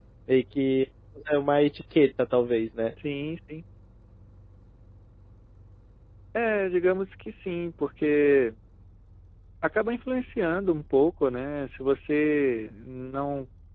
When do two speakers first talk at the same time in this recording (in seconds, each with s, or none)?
none